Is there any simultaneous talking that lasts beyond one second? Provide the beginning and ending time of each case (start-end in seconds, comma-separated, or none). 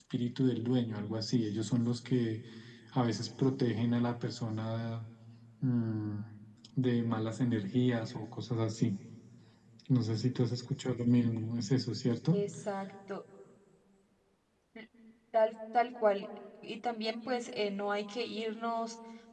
none